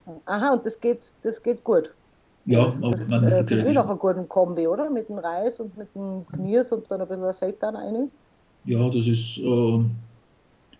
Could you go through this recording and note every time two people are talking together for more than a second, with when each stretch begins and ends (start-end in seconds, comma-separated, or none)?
2.5-3.9